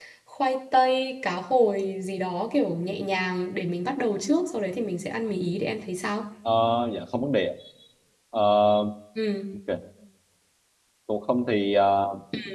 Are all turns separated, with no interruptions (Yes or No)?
Yes